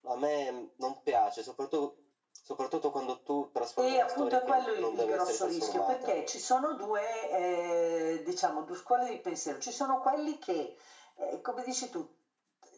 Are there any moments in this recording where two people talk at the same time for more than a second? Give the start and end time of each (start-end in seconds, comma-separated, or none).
3.8-6.1